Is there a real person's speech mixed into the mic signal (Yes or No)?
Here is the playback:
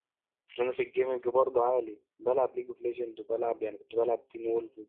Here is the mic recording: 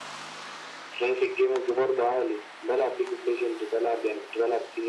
No